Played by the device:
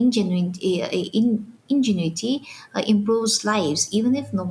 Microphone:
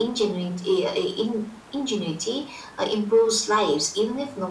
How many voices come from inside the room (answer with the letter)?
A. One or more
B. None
B